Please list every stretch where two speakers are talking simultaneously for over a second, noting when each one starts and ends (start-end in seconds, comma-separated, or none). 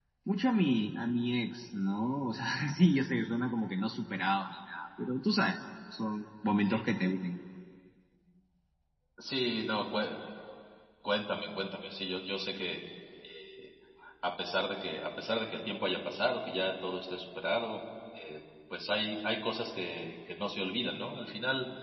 none